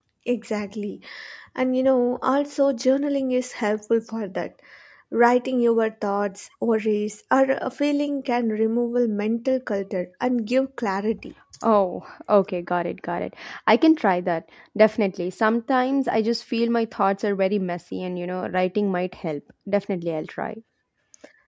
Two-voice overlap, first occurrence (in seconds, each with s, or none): none